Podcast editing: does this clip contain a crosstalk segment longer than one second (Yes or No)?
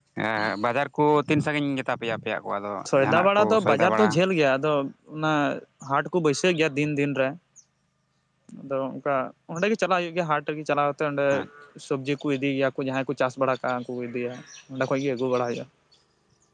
Yes